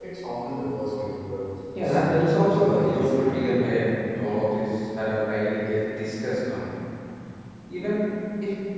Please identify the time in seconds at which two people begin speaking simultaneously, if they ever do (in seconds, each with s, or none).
1.8 s